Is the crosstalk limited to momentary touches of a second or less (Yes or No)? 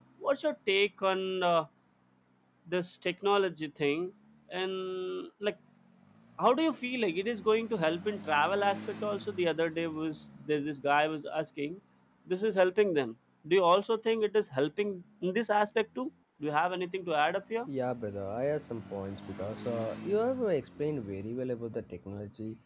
Yes